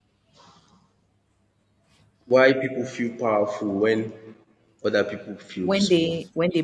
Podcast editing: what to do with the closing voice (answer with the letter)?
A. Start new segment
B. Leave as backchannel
A